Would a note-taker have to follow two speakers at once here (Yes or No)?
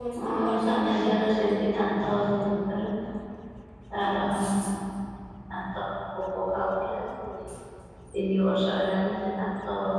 Yes